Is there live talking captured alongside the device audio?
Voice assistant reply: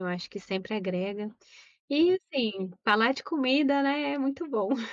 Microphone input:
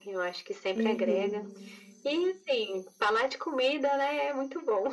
Yes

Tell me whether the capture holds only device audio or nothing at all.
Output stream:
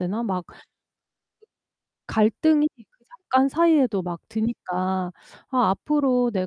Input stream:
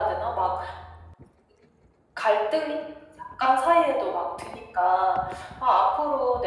Yes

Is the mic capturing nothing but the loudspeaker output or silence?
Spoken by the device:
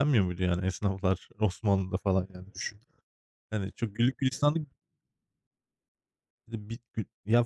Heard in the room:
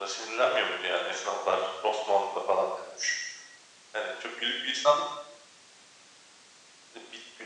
Yes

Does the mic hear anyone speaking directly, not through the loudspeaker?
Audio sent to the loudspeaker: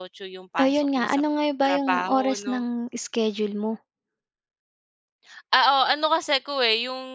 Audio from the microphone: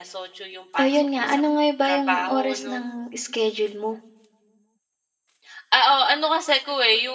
No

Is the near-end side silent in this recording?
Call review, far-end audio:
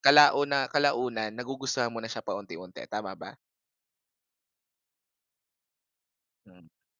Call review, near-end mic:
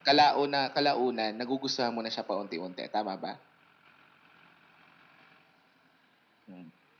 Yes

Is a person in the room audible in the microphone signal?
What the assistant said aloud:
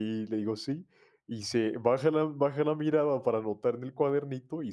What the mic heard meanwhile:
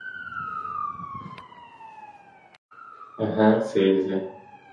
Yes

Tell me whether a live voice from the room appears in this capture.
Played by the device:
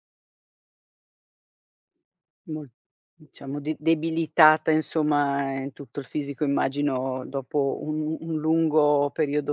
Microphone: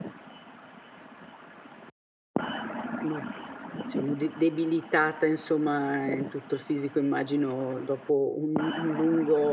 No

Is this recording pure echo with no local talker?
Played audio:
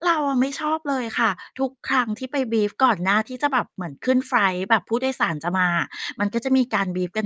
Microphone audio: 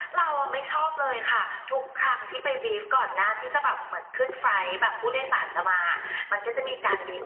Yes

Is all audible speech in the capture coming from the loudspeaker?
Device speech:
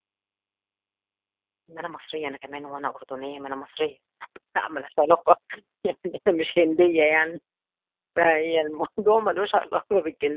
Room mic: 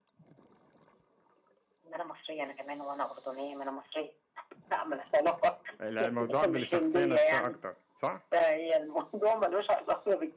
No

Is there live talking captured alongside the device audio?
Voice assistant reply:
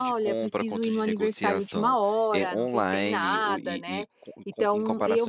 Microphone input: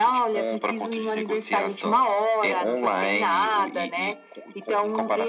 No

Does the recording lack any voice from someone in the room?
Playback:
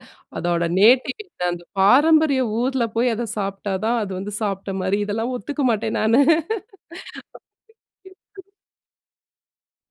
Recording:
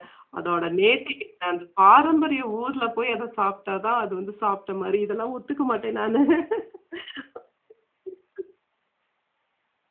Yes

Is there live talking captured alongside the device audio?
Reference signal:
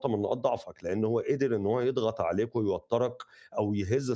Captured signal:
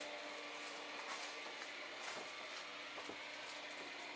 No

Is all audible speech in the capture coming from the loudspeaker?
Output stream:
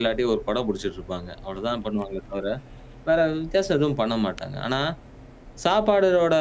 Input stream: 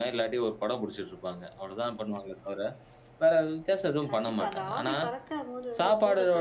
No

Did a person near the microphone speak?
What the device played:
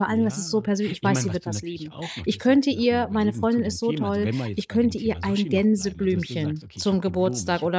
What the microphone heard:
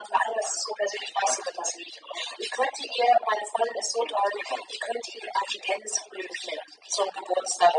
No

